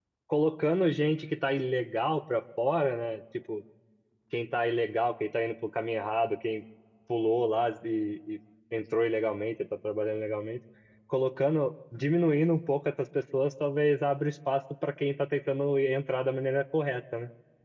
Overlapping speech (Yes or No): No